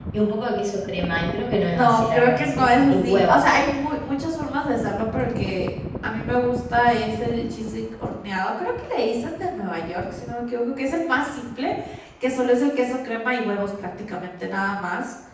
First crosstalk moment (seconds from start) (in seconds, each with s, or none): 1.6 s